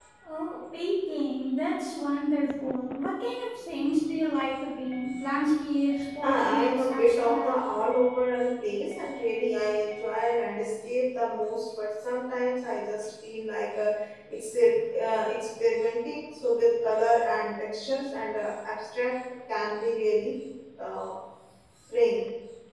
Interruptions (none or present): present